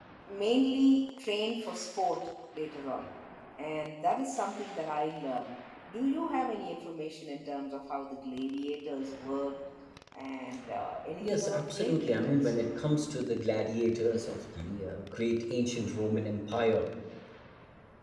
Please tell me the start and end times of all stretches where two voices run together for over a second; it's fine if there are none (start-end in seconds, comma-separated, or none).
11.2-12.5